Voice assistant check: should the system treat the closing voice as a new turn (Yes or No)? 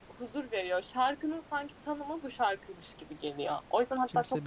No